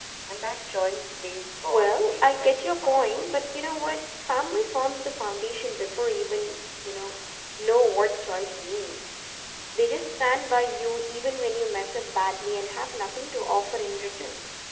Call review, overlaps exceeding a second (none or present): present